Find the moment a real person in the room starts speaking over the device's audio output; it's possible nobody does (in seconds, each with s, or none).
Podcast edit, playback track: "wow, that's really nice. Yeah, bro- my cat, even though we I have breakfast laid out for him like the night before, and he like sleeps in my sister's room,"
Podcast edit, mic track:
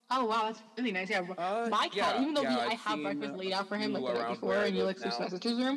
1.4 s